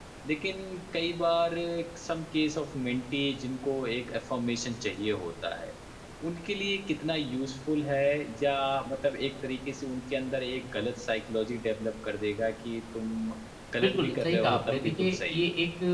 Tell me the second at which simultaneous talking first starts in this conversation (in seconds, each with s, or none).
13.8 s